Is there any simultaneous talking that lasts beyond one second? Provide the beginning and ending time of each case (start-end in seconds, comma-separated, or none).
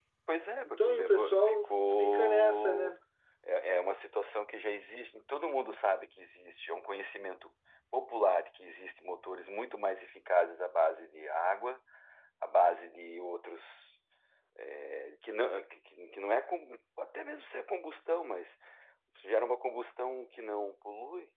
0.6-2.9